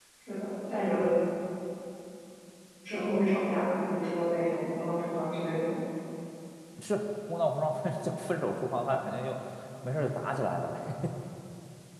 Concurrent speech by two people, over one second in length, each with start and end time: none

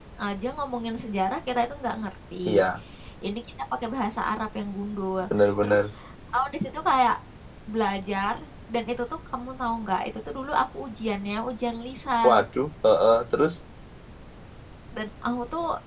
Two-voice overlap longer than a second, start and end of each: none

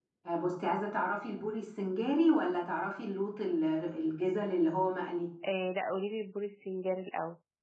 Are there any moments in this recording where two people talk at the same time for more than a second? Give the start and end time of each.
none

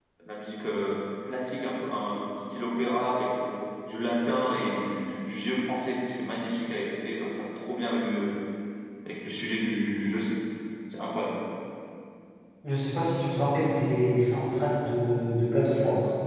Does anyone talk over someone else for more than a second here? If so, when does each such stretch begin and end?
none

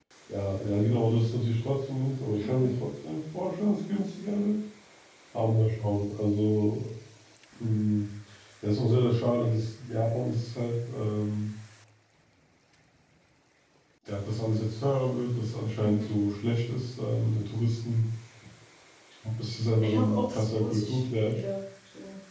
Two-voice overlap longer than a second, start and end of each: 19.8-21.4

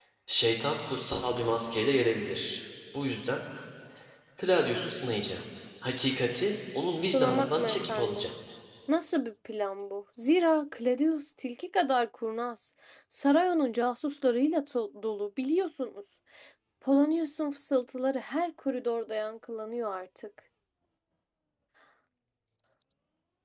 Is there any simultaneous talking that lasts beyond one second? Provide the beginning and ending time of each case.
7.0-8.3

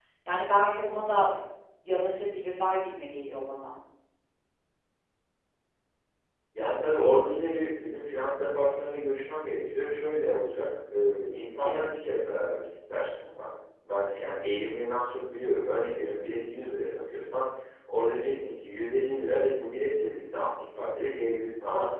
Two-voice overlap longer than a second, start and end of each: none

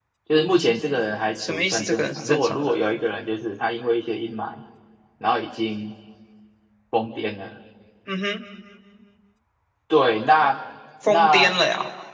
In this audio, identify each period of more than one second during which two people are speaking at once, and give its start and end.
1.4-2.8

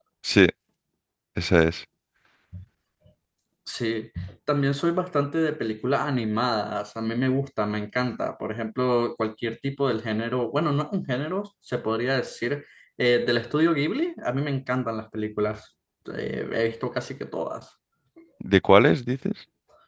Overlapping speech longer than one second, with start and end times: none

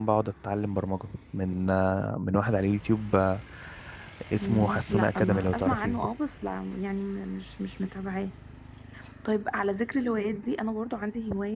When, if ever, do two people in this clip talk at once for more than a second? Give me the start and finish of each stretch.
4.4-6.0

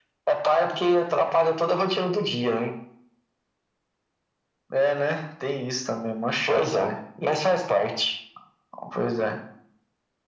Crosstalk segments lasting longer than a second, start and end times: none

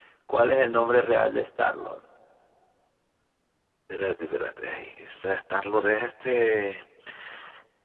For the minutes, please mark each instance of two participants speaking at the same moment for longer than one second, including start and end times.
none

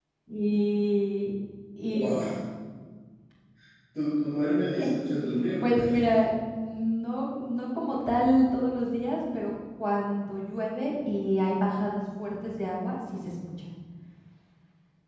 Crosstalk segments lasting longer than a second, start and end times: 4.7-6.1

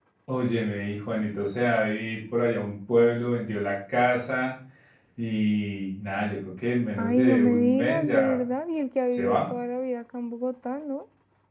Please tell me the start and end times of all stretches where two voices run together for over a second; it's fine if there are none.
7.0-8.4

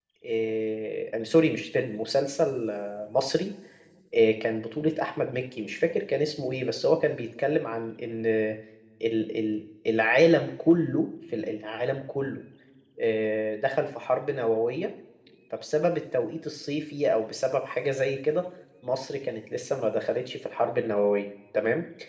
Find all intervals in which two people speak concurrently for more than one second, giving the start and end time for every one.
none

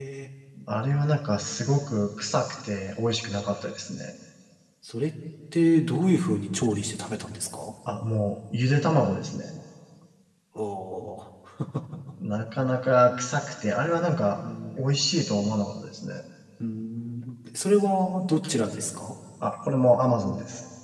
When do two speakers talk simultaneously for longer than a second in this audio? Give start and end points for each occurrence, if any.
none

